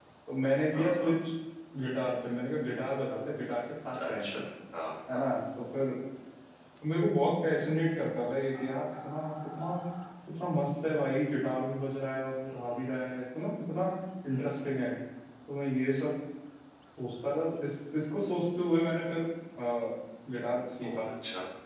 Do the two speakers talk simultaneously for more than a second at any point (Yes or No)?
No